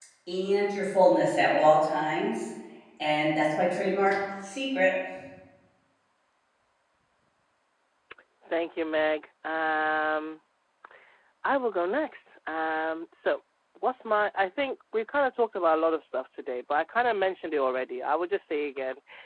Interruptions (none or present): none